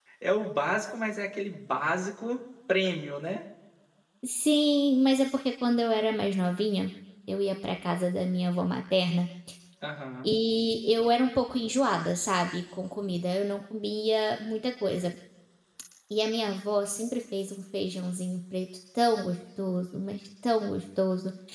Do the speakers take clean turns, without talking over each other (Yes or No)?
Yes